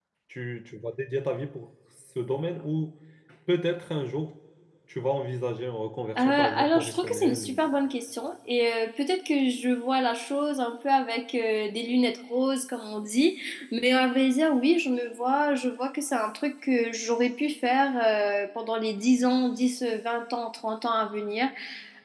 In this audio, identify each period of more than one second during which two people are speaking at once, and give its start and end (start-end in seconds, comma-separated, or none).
6.2-7.6